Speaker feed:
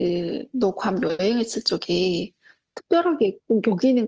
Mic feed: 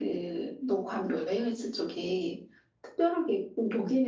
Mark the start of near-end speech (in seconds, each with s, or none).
none